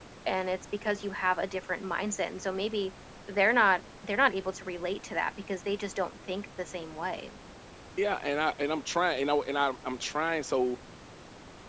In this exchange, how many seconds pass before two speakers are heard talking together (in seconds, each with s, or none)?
none